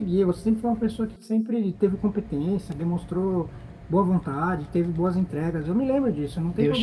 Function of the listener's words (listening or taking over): taking over